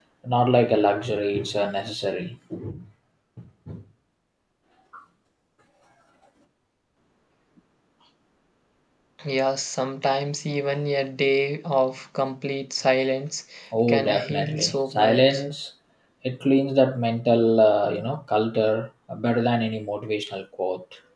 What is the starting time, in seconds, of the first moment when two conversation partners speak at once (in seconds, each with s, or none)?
13.9 s